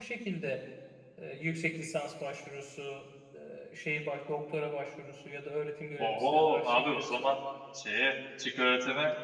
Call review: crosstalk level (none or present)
present